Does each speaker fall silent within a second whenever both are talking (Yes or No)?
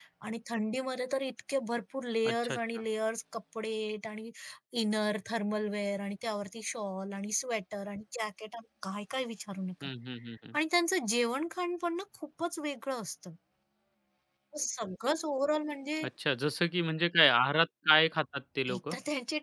Yes